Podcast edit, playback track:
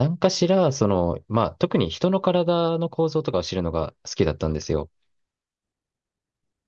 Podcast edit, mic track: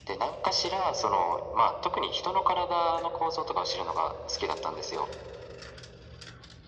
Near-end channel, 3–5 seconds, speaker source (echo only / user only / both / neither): echo only